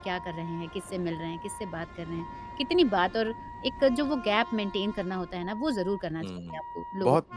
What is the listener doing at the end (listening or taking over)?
taking over